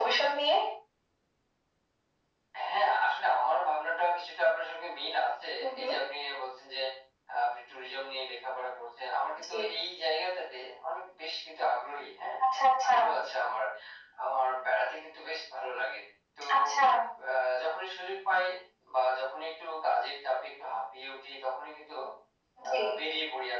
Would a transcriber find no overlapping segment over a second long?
Yes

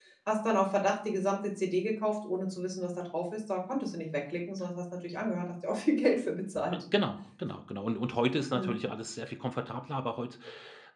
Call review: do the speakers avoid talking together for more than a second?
Yes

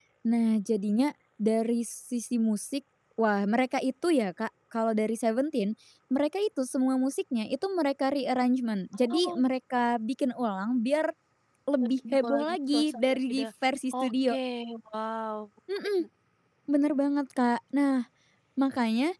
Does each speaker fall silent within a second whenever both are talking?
No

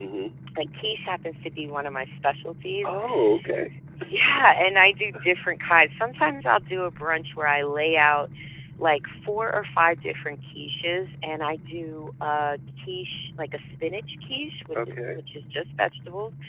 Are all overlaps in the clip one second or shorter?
Yes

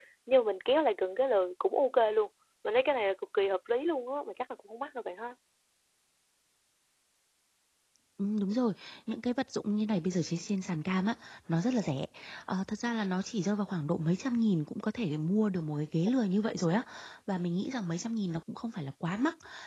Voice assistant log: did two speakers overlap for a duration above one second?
No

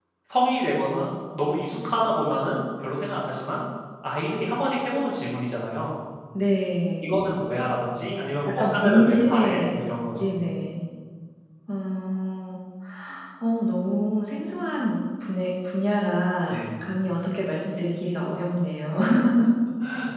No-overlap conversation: No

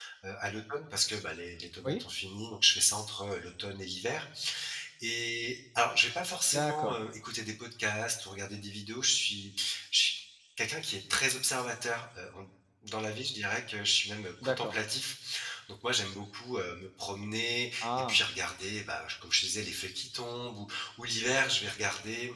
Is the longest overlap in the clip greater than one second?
No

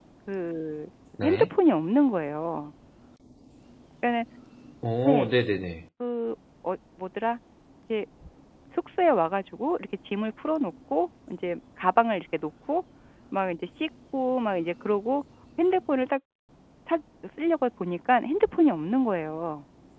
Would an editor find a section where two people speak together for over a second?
No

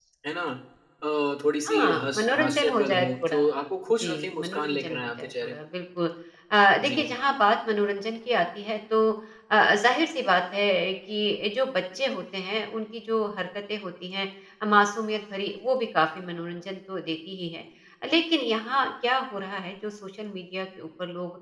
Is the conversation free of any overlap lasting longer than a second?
No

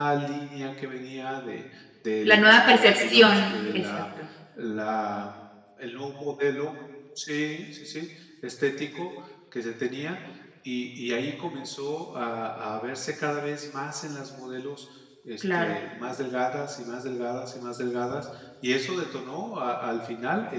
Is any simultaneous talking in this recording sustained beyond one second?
Yes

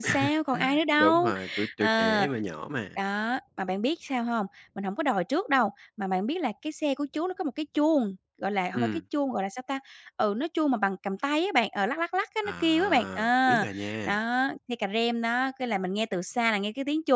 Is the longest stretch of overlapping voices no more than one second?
No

